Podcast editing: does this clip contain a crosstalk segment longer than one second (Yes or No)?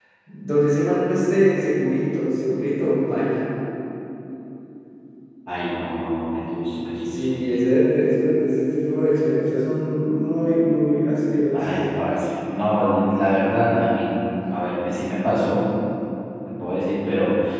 No